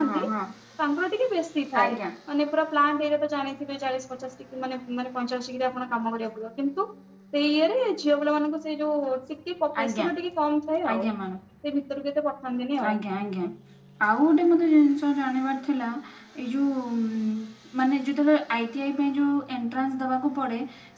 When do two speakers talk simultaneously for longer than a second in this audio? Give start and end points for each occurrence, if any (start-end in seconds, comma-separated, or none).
none